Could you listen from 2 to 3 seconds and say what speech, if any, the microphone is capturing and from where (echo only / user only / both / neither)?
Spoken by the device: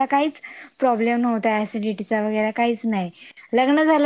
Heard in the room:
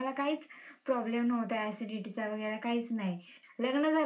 echo only